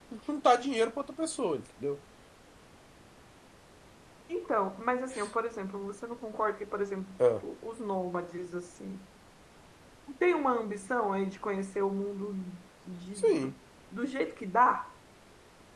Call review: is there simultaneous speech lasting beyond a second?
No

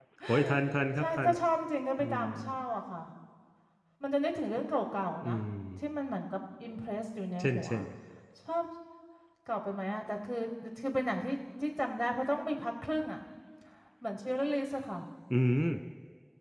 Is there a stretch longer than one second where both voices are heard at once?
No

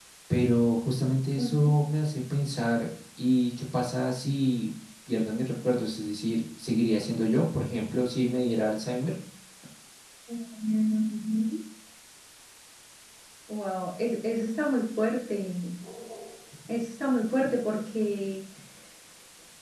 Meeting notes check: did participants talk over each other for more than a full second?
No

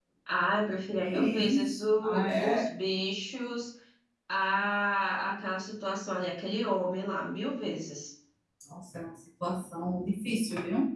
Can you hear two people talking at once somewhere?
Yes, from 1.0 s

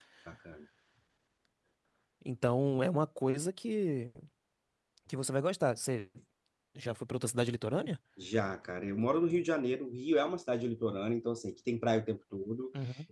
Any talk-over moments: No

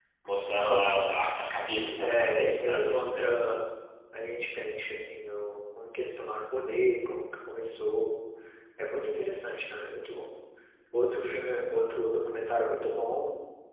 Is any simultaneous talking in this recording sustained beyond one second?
Yes, from 2.0 s

